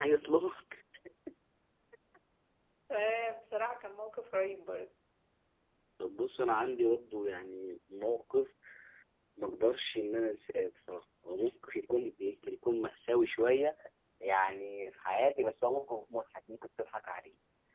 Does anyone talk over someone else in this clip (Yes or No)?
No